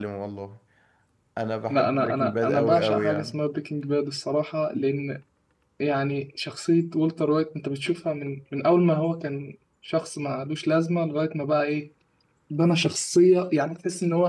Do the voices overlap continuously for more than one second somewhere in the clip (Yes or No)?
Yes